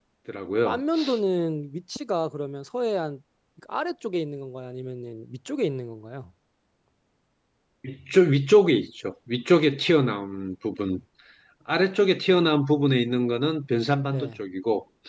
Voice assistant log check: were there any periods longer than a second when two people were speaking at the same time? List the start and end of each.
none

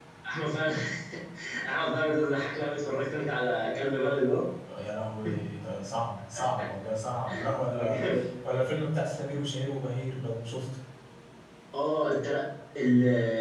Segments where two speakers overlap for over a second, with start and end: none

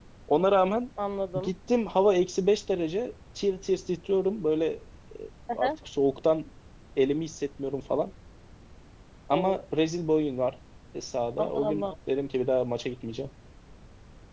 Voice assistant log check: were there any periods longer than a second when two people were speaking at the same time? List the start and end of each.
none

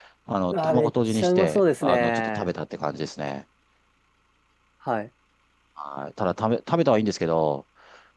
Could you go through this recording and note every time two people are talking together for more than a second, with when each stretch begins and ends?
0.5-2.5

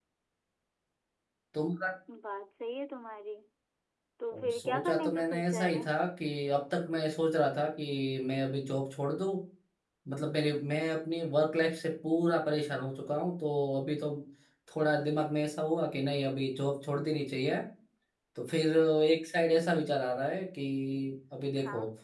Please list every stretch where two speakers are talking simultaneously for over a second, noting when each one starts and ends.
4.3-5.8

